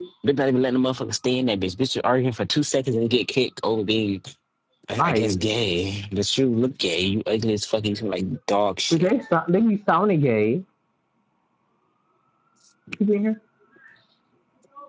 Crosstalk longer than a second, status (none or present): none